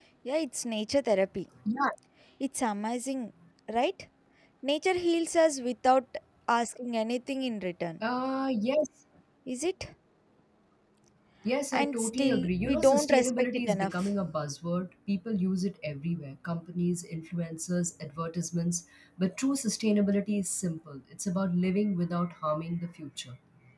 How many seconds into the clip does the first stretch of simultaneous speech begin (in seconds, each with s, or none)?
11.7 s